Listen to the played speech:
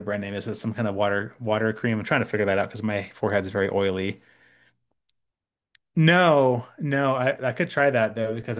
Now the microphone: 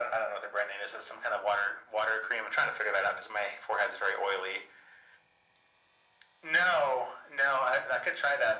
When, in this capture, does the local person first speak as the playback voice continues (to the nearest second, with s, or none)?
none